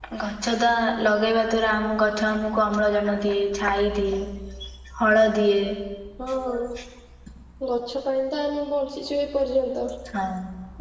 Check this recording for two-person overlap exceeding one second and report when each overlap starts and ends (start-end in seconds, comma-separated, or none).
none